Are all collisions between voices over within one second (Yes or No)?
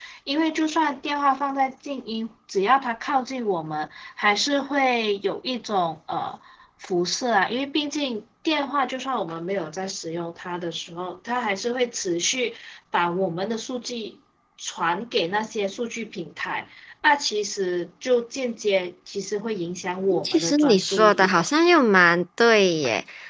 No